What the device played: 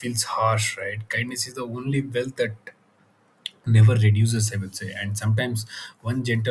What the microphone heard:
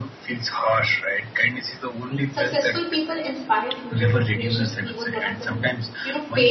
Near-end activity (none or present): present